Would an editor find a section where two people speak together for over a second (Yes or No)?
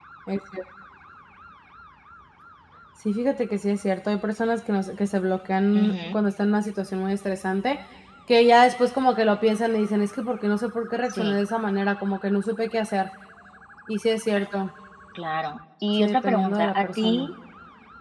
Yes